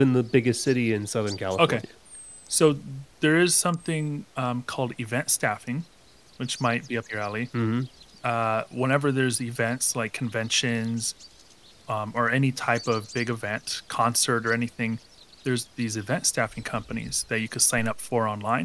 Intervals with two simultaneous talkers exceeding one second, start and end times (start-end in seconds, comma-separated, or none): none